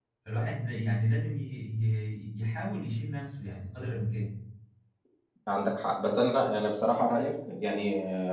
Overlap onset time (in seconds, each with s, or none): none